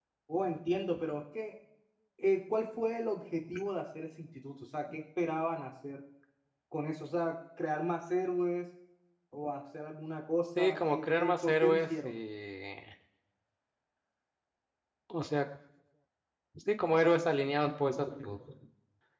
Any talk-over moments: Yes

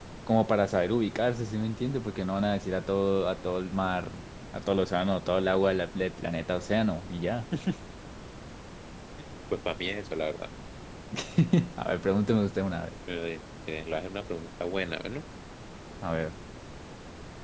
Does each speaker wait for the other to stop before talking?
Yes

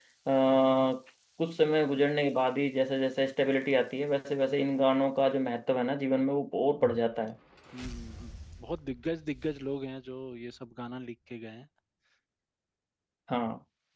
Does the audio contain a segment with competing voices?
No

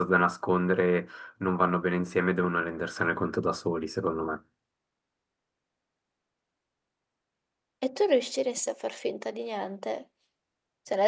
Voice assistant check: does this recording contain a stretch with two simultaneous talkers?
No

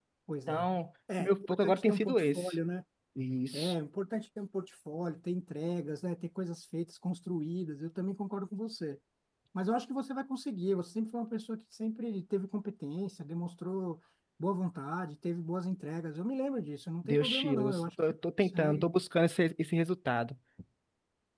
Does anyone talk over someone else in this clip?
Yes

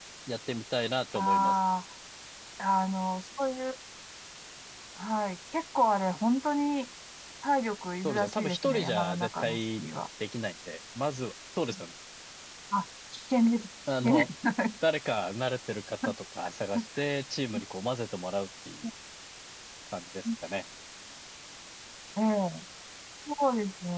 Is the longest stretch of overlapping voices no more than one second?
No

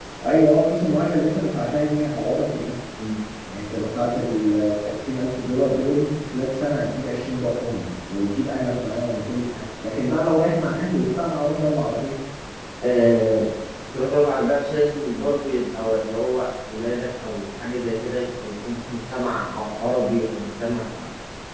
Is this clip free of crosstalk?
Yes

